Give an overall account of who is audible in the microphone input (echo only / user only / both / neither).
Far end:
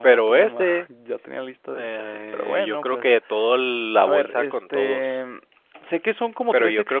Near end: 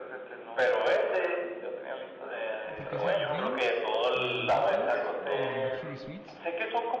both